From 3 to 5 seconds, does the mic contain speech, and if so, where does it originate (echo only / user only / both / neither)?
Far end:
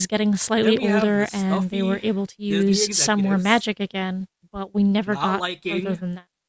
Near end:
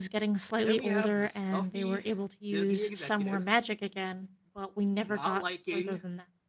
echo only